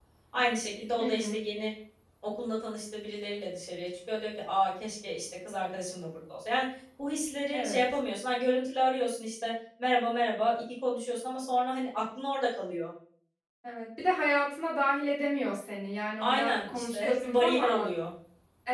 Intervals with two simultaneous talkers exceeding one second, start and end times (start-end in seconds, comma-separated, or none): 16.2-17.9